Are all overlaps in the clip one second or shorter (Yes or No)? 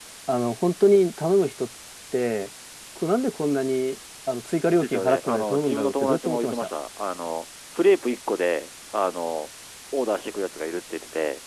No